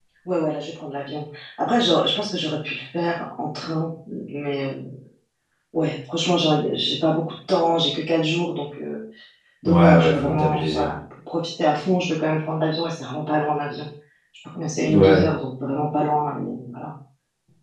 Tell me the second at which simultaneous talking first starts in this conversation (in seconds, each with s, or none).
9.7 s